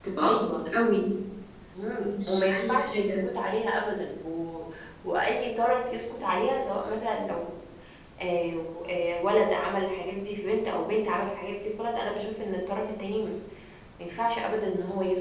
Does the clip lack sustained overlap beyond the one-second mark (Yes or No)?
No